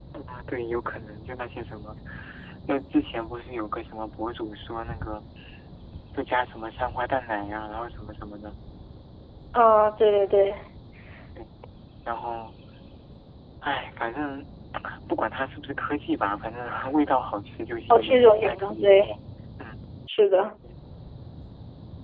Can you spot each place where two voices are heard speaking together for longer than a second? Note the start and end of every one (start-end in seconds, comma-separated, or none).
17.9-19.1